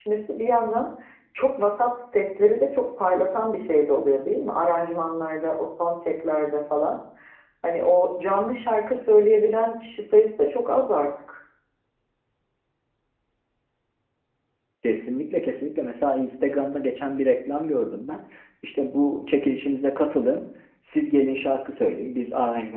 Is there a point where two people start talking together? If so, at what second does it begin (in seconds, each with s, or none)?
none